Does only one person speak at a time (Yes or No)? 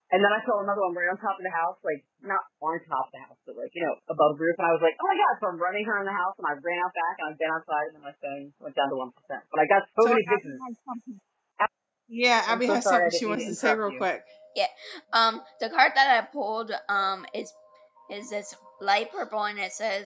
No